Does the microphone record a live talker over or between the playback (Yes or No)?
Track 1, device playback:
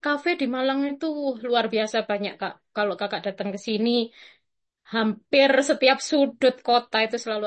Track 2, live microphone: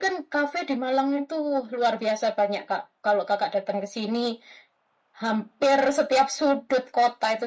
No